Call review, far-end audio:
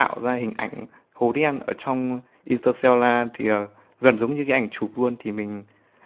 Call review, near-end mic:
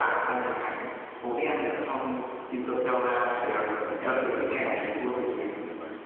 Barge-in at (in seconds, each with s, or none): 3.8 s